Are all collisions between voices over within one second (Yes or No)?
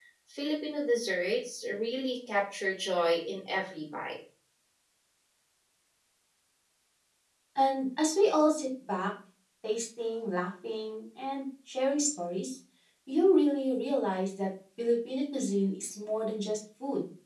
Yes